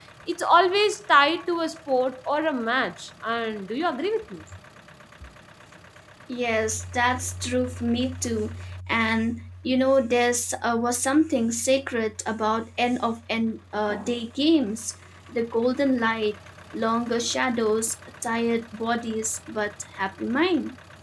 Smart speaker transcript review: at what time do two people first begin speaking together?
none

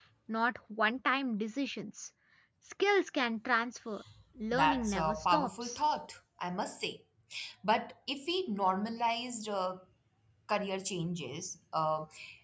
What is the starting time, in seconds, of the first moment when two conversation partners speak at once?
4.5 s

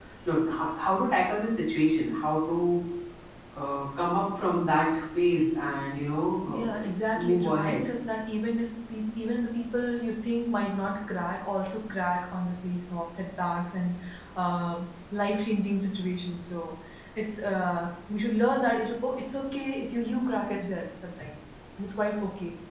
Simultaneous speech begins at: 6.5 s

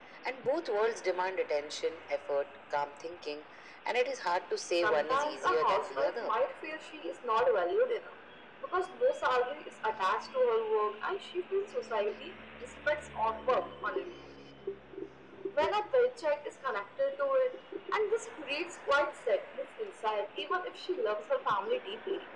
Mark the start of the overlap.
4.8 s

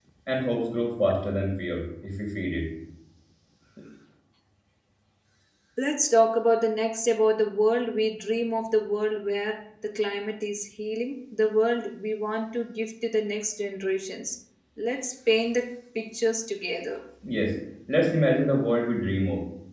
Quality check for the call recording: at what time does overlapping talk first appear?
none

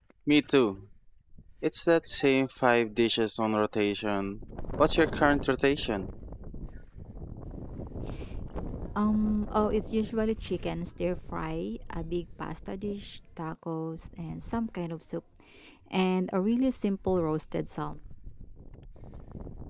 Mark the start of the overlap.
none

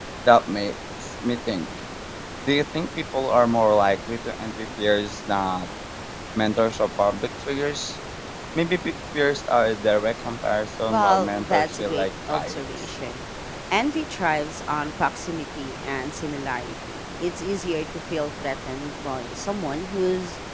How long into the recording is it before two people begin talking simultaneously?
10.9 s

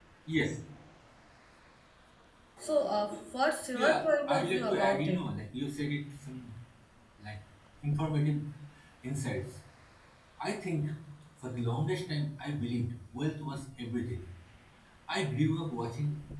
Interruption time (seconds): 3.7 s

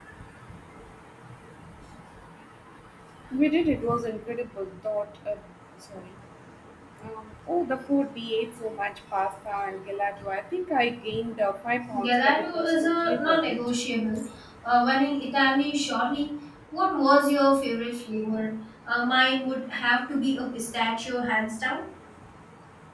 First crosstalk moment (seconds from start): 11.9 s

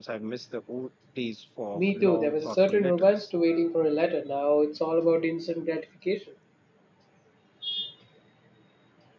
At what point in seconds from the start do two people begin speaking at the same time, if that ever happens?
1.7 s

